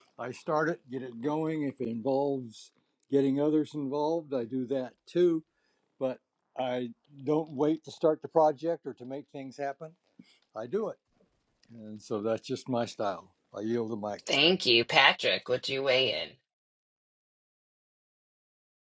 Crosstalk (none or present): none